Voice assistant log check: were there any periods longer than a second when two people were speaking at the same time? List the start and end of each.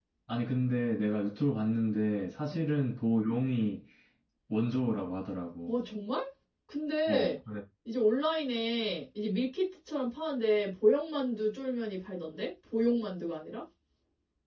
none

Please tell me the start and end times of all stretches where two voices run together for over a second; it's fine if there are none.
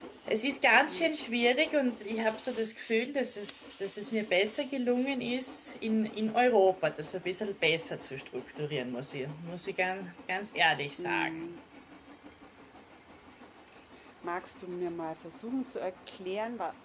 none

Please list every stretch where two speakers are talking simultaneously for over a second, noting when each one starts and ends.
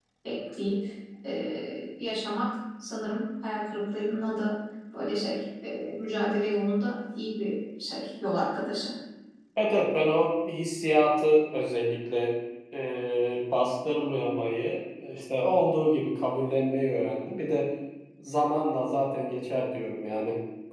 none

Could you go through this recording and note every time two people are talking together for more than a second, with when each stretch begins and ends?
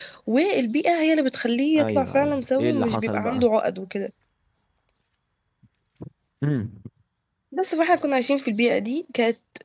1.8-3.5

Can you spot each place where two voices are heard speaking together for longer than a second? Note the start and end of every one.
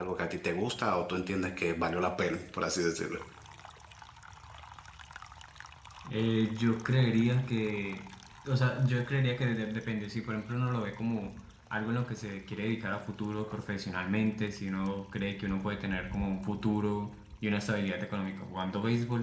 none

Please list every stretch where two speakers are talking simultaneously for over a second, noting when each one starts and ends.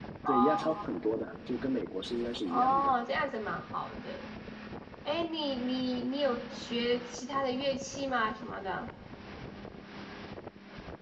none

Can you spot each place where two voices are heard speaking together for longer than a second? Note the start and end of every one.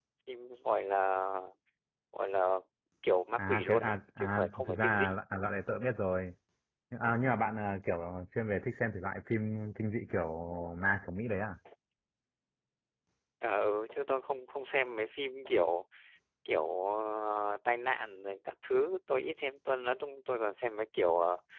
3.4-5.2

